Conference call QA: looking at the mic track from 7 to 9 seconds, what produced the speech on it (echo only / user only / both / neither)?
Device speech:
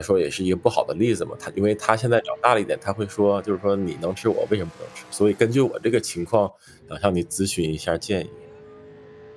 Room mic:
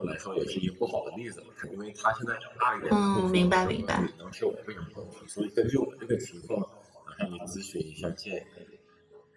echo only